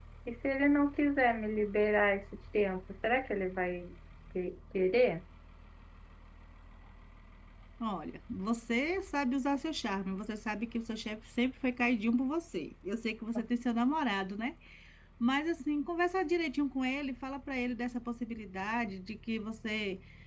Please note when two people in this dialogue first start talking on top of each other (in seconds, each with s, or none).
none